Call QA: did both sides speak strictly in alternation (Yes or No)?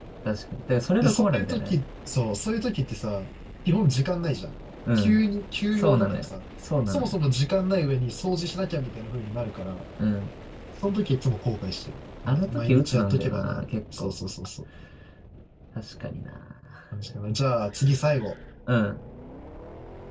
No